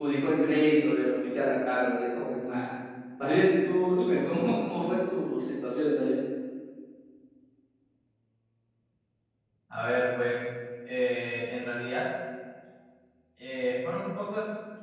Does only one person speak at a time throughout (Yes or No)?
Yes